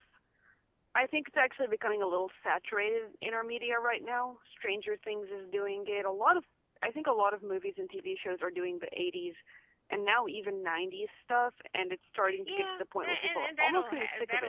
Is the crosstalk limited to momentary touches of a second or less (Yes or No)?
No